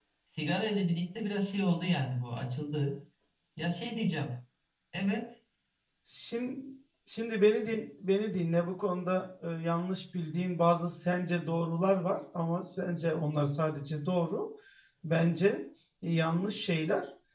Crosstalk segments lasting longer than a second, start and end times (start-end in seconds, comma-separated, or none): none